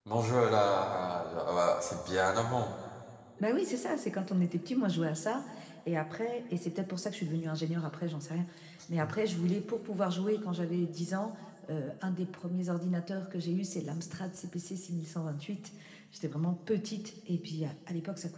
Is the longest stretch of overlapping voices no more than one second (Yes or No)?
Yes